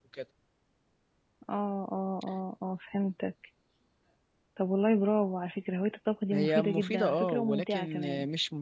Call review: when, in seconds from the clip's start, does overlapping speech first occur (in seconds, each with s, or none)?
6.3 s